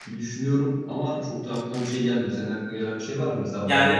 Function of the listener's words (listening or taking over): taking over